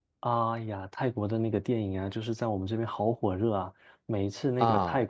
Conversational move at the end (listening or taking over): listening